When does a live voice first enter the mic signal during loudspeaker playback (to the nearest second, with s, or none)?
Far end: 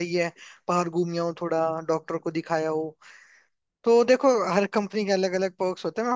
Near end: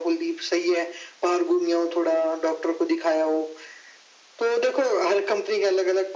none